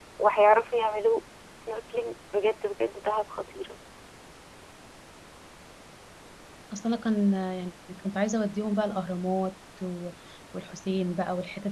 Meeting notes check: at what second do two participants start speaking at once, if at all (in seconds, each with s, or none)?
none